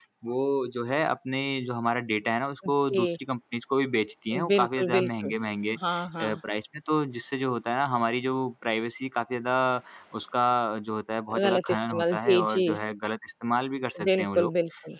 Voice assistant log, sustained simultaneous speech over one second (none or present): present